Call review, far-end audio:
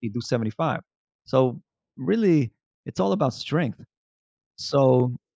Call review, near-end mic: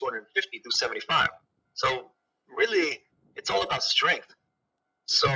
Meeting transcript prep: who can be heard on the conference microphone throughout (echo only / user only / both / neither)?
echo only